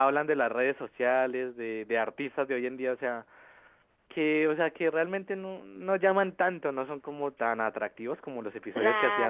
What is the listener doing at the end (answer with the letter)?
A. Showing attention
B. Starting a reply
B